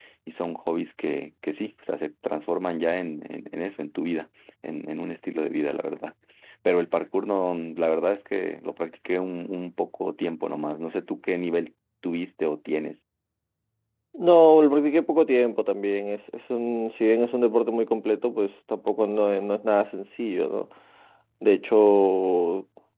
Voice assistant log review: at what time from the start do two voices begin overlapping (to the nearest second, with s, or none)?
none